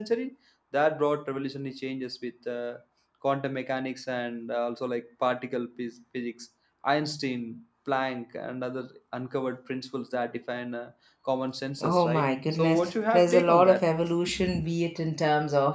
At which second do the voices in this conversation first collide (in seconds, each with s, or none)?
11.8 s